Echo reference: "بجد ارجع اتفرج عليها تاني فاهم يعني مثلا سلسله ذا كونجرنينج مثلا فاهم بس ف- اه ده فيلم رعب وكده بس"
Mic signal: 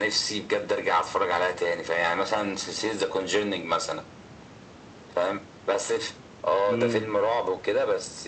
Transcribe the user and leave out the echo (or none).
مم.